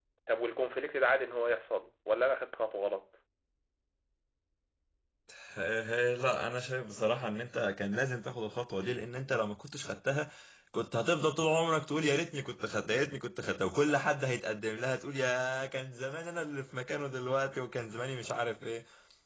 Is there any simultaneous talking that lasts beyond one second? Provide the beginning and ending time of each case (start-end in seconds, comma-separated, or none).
none